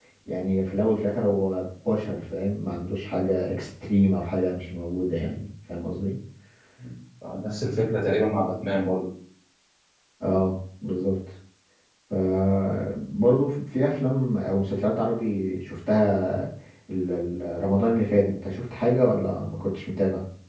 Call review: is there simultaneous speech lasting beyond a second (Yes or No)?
No